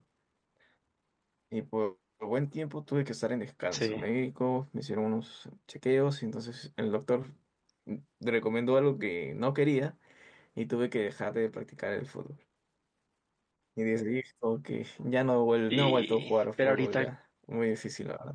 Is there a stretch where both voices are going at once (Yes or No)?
Yes